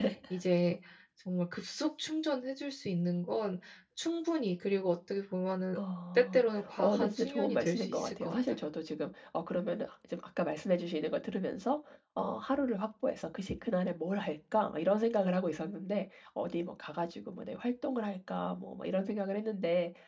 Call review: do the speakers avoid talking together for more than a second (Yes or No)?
No